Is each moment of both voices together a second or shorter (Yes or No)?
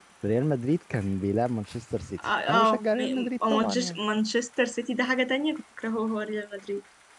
No